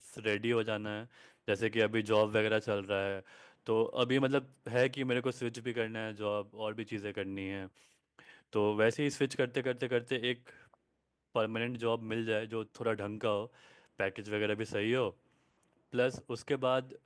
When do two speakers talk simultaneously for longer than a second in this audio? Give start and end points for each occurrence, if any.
none

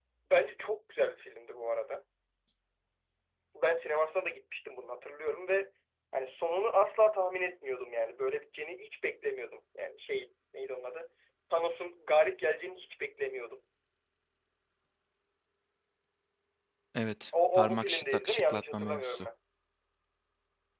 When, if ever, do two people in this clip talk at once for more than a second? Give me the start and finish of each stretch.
17.5-19.3

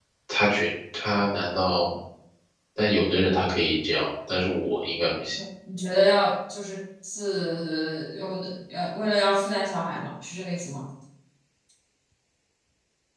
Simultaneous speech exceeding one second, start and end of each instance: none

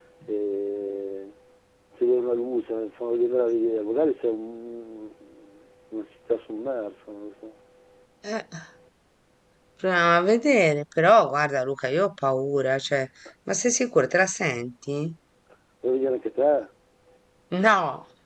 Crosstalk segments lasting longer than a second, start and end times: none

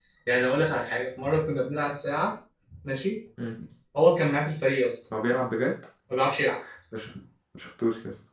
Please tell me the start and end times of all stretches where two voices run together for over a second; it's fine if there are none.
none

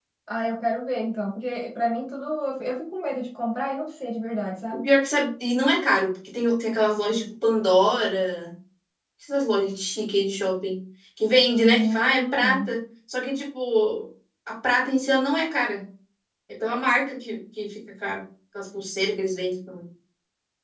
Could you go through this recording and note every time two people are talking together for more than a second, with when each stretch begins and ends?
11.5-12.7

